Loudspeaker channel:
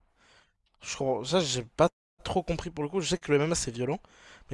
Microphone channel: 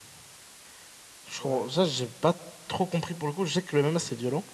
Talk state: both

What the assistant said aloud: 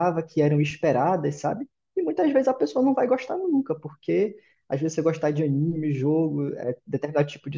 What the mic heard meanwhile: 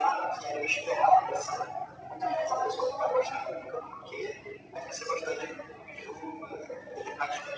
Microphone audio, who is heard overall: echo only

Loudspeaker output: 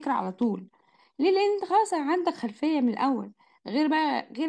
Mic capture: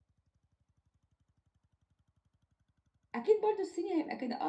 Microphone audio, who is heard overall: user only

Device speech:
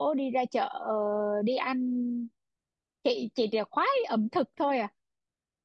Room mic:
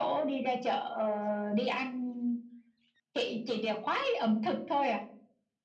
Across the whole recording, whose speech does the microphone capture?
echo only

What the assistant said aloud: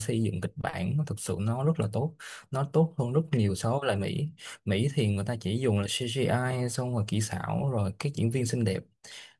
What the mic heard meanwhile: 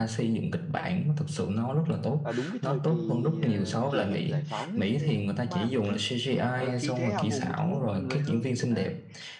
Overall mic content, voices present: both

